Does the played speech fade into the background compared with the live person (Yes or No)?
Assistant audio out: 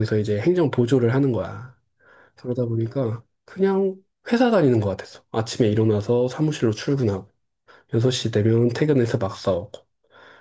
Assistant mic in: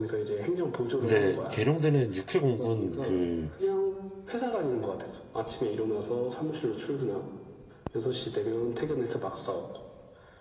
Yes